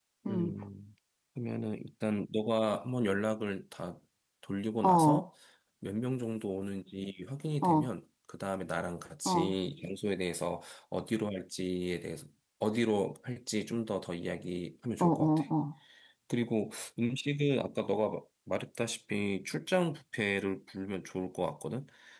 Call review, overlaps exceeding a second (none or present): none